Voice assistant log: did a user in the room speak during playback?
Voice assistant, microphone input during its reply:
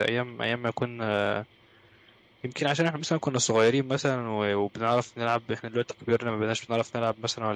Yes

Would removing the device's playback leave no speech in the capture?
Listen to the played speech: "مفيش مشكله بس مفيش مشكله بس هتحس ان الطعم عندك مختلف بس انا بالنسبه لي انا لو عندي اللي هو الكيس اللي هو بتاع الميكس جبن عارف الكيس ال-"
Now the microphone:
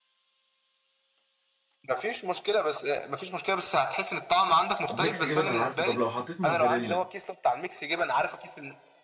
No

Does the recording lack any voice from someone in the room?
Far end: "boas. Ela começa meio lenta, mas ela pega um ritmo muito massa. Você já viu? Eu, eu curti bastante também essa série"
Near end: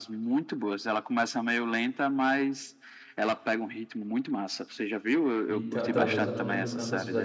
No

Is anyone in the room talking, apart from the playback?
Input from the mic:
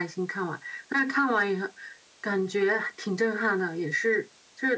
No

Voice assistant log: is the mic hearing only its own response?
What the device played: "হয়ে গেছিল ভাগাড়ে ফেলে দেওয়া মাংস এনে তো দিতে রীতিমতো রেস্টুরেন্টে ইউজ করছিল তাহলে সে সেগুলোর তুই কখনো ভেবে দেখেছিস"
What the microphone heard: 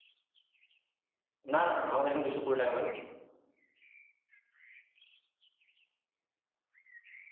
No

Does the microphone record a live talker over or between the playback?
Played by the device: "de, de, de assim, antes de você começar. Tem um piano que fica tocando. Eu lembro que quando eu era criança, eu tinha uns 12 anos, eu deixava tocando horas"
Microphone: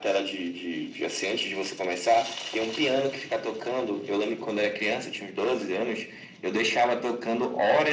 No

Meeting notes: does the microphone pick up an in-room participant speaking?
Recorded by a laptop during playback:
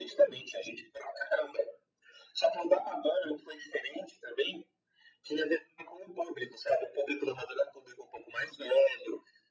No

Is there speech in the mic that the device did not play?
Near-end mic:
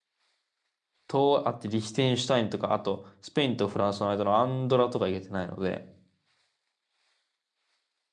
Yes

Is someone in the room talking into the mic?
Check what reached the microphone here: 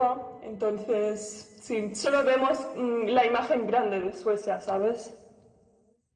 No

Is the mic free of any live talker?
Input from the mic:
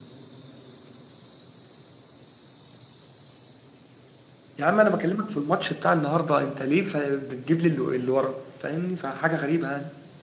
No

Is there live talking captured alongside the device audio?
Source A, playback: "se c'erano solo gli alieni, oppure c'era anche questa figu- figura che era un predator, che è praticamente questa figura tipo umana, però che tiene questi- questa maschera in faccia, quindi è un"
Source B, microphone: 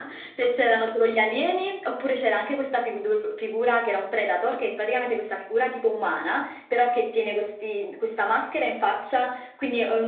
No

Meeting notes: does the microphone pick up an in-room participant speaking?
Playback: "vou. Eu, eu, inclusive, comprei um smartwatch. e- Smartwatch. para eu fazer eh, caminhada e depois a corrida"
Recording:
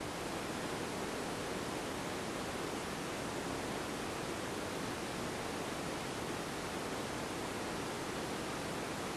No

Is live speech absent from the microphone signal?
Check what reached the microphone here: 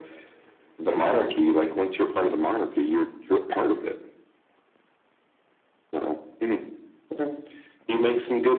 Yes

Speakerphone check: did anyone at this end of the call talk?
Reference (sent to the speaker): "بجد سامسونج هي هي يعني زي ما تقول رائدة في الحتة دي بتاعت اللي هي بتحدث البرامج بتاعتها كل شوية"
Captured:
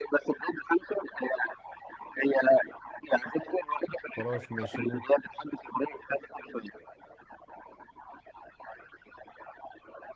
Yes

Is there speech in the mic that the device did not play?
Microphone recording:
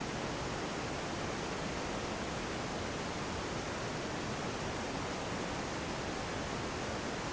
No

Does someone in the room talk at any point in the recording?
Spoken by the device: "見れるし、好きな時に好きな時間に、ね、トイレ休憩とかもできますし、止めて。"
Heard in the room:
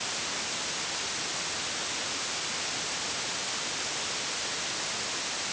No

